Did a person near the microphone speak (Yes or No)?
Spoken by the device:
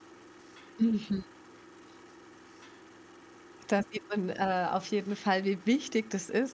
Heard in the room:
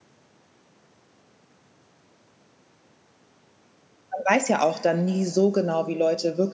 Yes